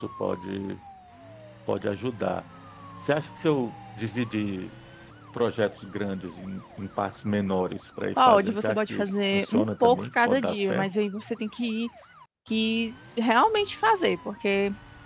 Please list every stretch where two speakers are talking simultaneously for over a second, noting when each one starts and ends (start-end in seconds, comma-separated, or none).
8.2-10.9